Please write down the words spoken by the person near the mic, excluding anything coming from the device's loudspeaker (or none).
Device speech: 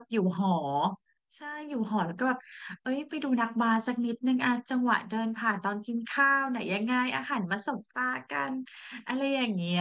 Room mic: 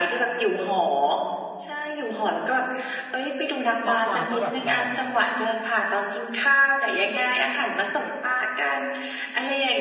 หน้าตาก็แบบหล่อเลยอะ